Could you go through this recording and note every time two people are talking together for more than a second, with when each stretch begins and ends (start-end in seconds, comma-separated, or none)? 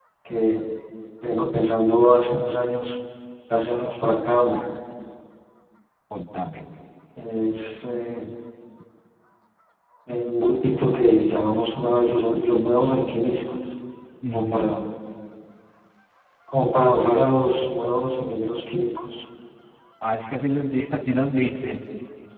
none